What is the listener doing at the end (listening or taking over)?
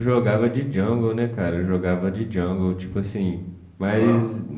listening